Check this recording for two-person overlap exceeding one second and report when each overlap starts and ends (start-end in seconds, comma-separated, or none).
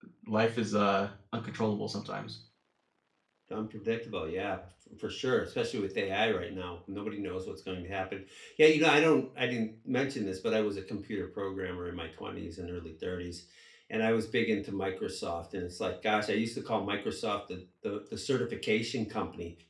none